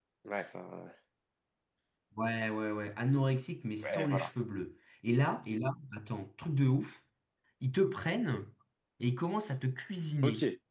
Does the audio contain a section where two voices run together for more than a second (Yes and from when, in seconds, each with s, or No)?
No